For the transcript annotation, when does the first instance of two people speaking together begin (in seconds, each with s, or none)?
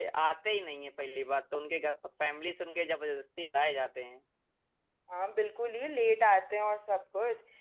none